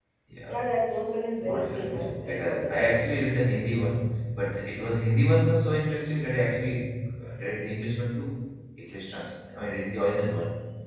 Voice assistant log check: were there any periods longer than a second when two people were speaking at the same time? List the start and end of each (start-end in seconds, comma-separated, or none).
1.4-3.2